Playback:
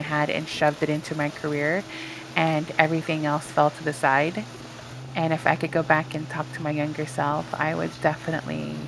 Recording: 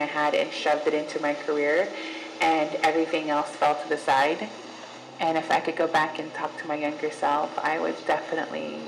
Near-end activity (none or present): none